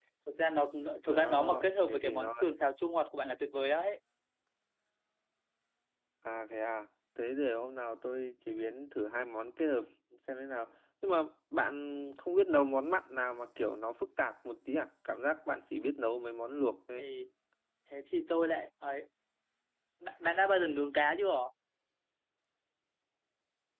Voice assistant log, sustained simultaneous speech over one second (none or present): present